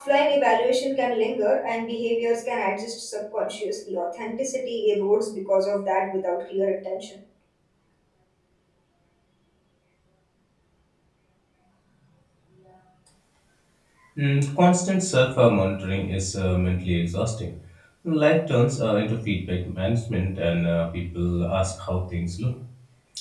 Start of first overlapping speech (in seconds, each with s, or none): none